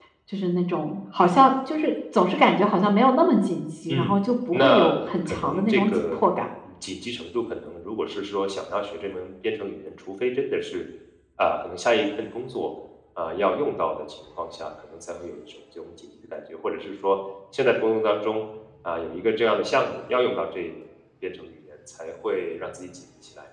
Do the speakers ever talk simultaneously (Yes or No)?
Yes